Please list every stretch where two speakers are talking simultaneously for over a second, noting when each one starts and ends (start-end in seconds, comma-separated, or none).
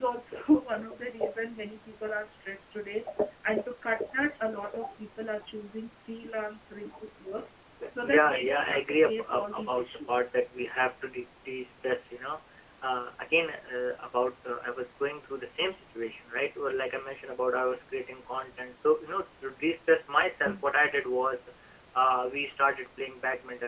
8.1-10.3